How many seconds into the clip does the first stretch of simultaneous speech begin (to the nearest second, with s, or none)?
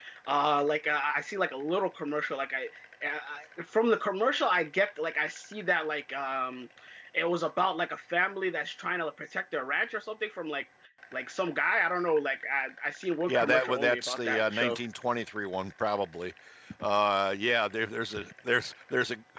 13 s